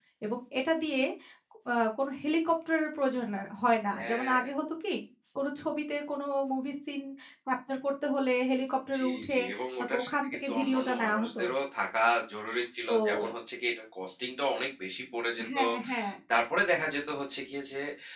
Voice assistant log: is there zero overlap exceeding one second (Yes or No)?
No